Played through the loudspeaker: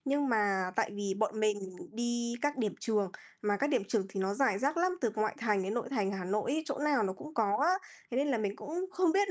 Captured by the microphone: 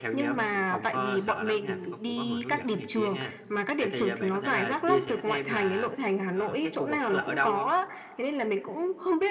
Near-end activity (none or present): present